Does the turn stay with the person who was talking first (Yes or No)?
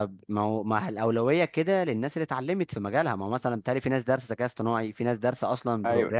No